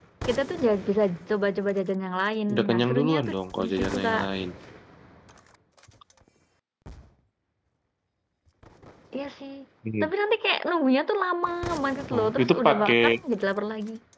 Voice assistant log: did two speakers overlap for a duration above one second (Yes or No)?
Yes